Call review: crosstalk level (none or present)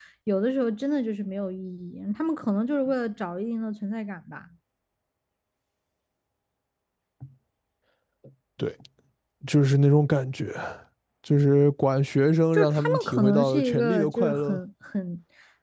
present